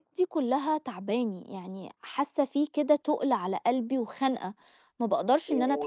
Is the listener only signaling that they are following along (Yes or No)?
No